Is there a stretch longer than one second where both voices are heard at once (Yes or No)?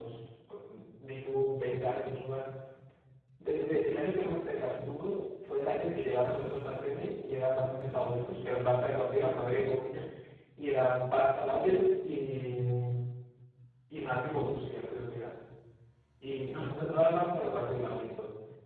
No